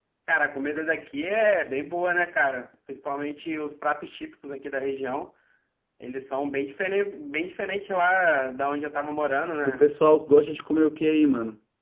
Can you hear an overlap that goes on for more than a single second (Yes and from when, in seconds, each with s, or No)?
No